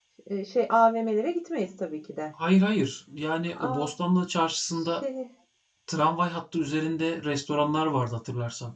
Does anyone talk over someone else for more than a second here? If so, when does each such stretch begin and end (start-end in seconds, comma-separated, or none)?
none